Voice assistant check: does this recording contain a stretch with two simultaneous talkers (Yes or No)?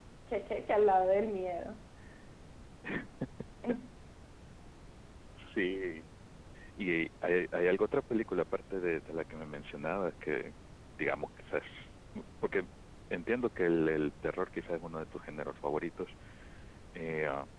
No